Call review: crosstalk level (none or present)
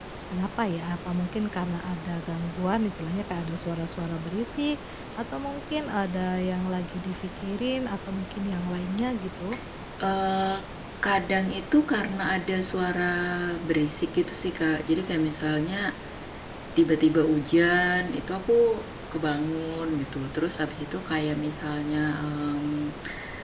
none